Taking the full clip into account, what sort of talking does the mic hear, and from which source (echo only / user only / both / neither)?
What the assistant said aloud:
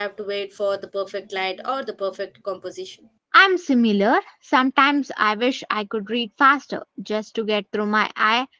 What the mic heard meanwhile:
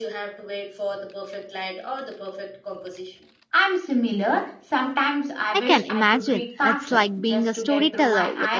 both